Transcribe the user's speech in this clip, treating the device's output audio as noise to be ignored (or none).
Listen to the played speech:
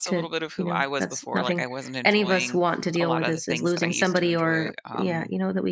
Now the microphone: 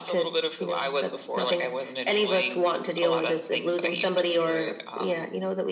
none